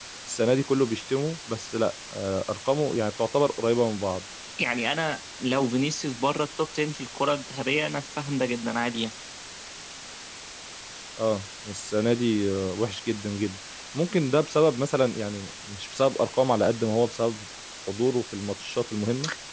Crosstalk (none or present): none